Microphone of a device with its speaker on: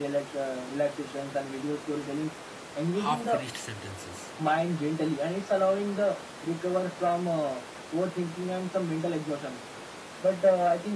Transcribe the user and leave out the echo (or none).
half finished sentences,